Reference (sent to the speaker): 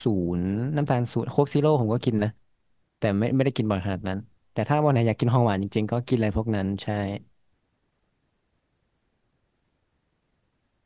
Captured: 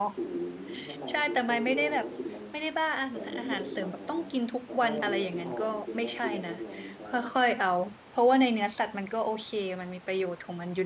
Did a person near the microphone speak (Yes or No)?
Yes